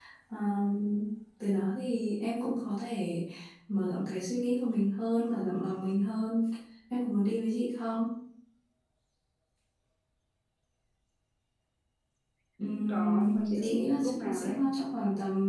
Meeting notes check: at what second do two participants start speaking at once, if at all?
12.9 s

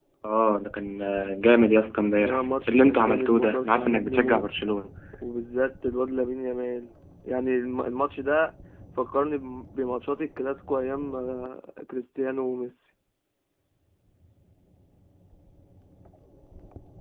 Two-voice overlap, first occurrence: 2.2 s

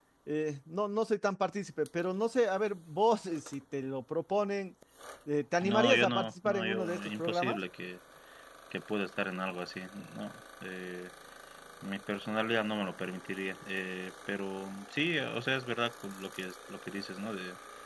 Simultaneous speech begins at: 5.6 s

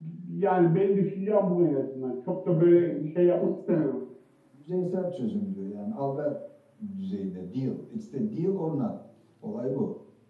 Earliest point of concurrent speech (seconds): 2.5 s

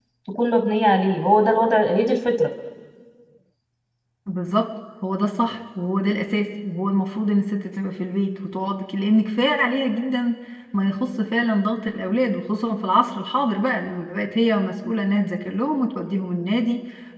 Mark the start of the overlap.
none

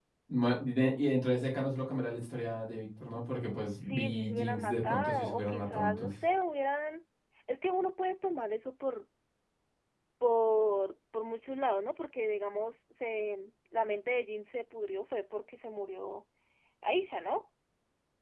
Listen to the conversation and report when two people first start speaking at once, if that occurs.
3.8 s

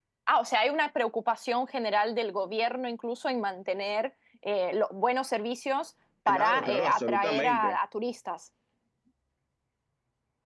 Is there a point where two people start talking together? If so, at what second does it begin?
6.3 s

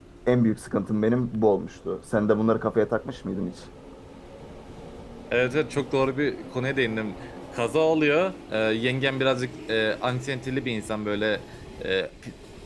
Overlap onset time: none

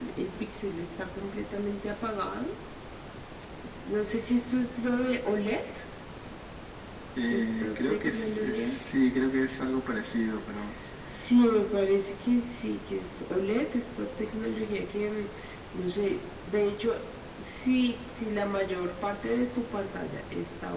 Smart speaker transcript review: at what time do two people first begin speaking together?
7.3 s

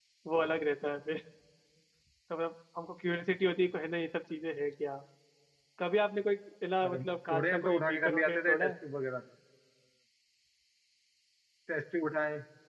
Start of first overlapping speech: 6.8 s

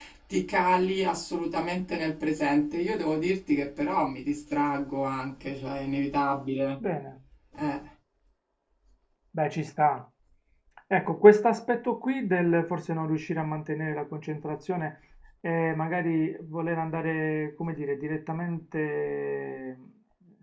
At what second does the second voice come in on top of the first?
none

